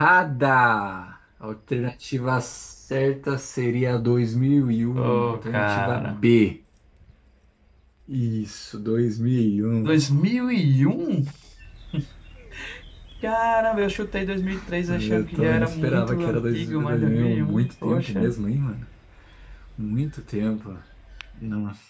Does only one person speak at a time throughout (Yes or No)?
No